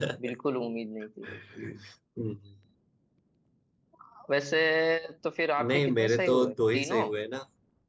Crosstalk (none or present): present